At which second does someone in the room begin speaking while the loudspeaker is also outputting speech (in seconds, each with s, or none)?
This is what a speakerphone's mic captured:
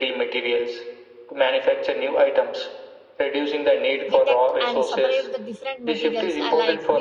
4.1 s